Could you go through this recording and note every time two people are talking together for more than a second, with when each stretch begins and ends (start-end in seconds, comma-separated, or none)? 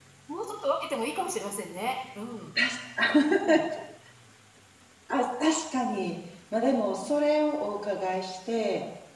none